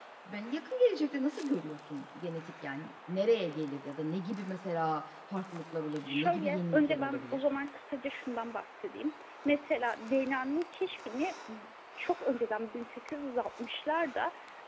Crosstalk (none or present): present